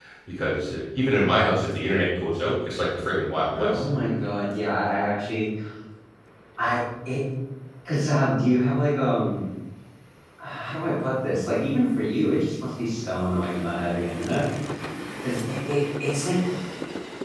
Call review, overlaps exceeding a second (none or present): none